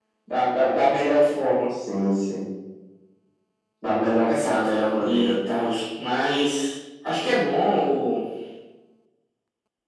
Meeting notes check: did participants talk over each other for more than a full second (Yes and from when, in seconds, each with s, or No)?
Yes, from 4.2 s